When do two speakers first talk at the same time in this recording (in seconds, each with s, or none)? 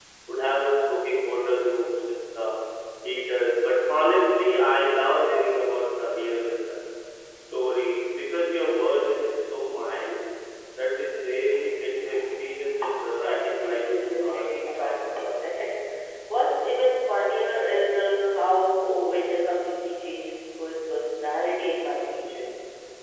13.2 s